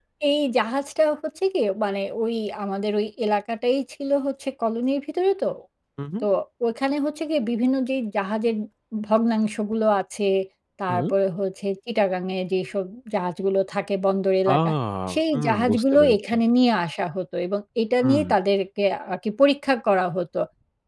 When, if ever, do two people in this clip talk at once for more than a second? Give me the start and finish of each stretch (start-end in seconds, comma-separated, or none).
15.1-16.3